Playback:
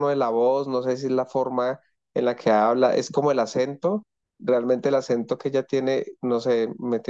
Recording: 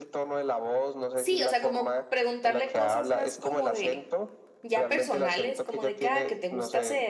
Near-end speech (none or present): present